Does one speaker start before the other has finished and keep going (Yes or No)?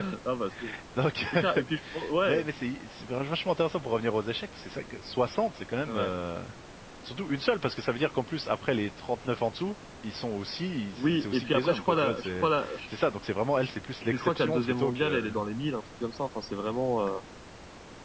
Yes